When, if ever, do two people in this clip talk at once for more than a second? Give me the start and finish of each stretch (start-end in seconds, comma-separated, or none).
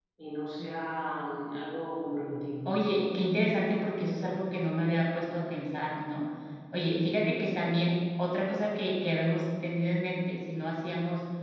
none